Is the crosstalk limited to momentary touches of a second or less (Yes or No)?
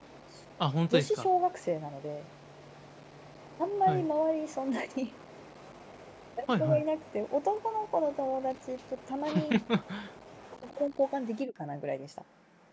Yes